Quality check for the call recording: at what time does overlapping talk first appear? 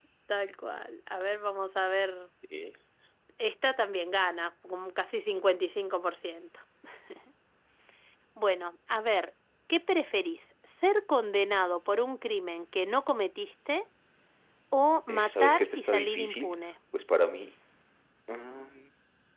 15 s

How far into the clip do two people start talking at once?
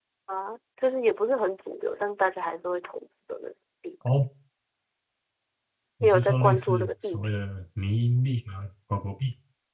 6 s

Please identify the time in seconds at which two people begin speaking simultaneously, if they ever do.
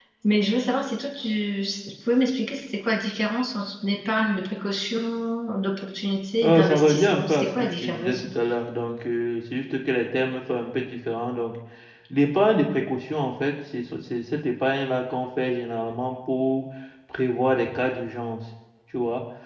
6 s

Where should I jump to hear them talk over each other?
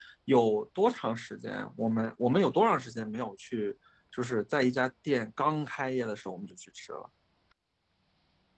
none

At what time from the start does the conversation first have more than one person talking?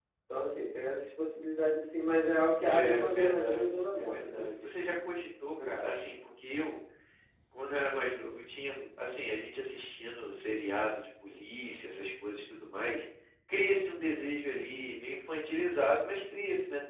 3 s

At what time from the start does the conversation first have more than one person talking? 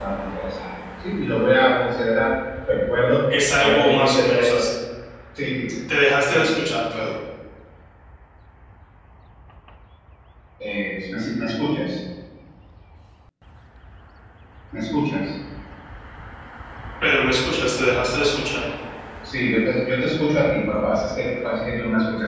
3 s

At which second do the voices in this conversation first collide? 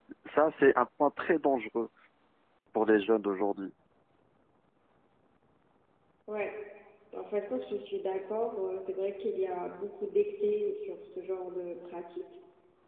none

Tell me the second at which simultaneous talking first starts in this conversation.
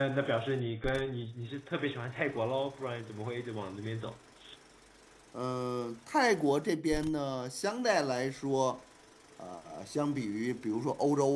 none

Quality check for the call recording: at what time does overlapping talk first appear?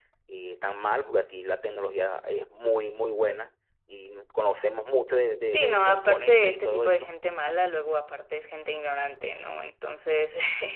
6 s

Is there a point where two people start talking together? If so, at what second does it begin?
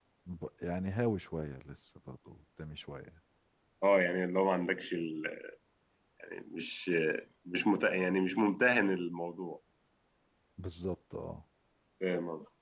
none

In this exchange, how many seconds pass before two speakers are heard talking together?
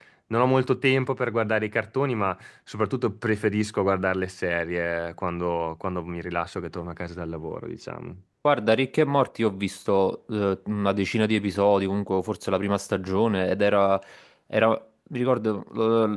none

